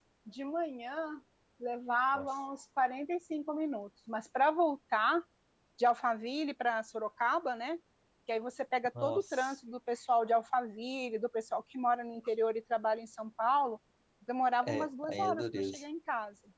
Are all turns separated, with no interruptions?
No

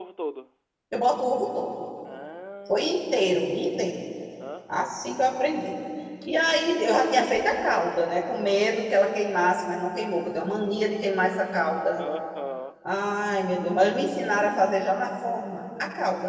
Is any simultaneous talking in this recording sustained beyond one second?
No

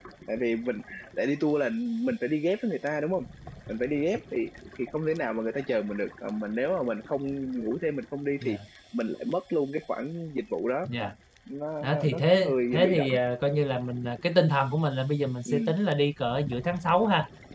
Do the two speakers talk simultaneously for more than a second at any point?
Yes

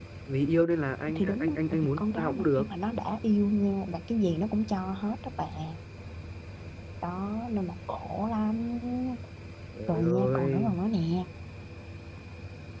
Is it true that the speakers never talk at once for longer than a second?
No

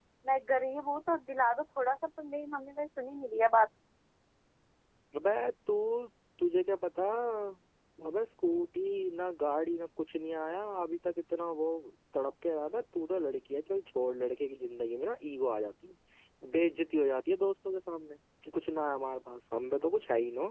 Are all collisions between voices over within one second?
Yes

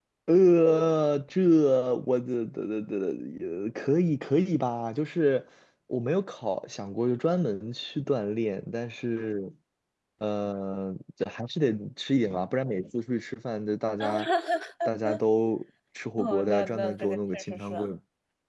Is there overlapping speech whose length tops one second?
Yes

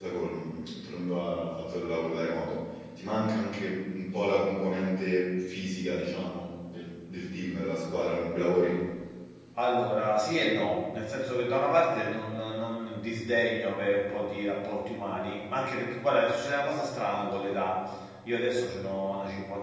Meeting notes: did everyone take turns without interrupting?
Yes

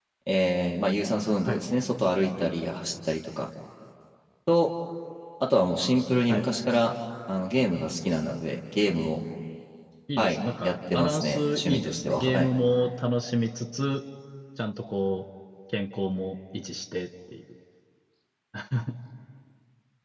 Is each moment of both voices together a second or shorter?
No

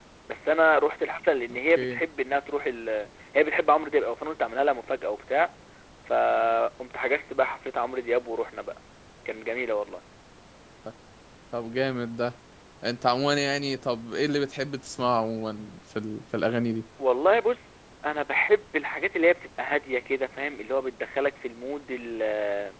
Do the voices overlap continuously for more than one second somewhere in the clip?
No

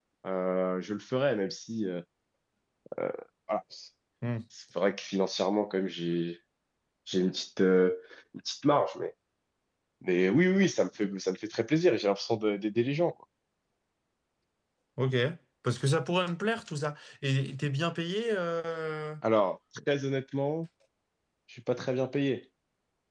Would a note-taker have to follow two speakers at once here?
No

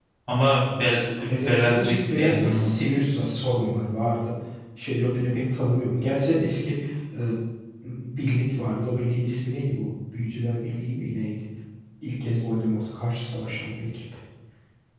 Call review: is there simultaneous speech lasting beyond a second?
Yes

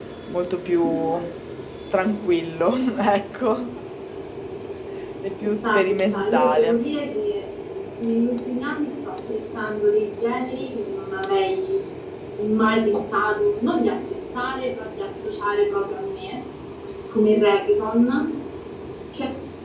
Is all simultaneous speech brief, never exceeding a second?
No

